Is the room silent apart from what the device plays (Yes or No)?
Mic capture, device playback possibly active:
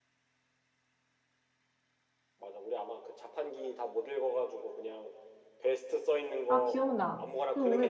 No